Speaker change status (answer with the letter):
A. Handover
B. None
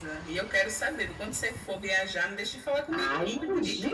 A